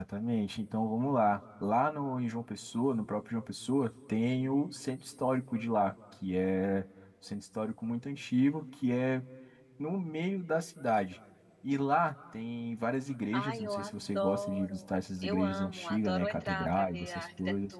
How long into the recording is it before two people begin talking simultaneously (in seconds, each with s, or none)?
13.3 s